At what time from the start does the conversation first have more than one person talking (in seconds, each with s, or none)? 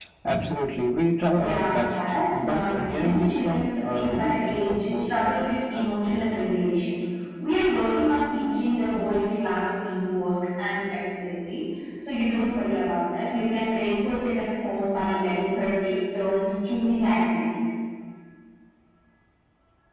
1.3 s